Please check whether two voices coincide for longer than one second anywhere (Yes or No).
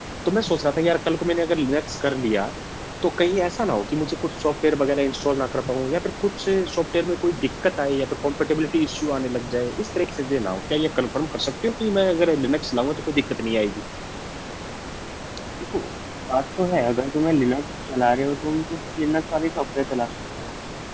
No